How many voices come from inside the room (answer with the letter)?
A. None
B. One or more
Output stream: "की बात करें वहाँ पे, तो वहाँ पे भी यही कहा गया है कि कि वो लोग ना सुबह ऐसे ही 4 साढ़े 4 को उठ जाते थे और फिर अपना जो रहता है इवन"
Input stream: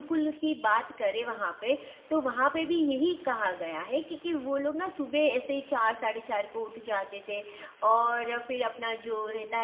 A